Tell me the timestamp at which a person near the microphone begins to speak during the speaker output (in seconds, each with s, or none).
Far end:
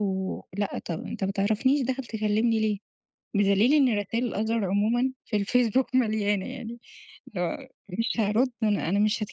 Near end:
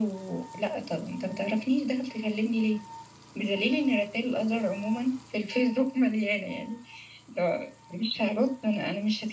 none